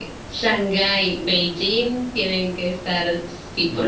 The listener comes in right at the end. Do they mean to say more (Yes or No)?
Yes